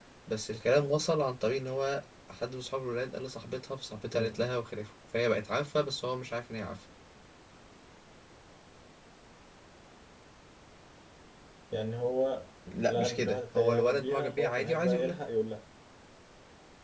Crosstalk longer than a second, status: present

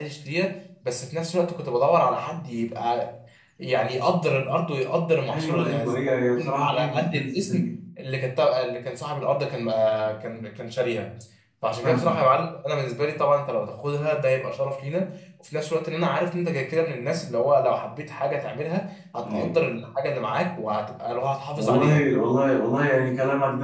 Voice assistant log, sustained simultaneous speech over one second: present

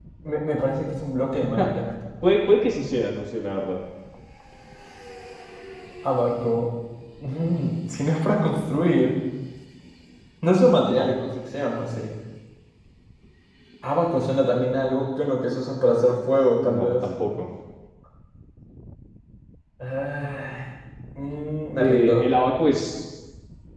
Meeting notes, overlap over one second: none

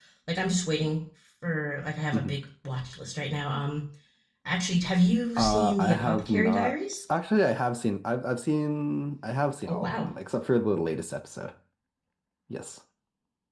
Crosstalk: present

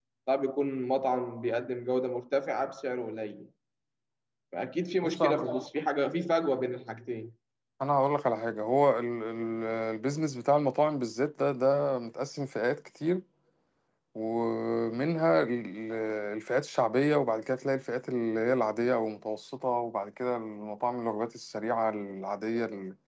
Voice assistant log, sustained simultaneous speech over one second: none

